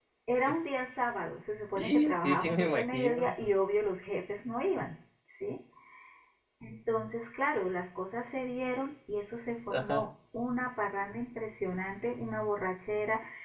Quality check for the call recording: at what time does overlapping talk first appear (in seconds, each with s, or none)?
1.8 s